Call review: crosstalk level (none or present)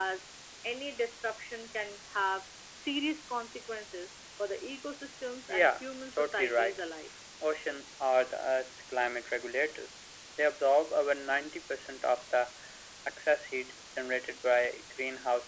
present